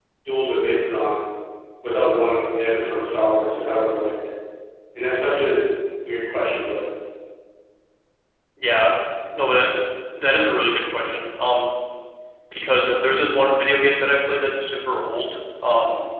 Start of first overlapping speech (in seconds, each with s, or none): none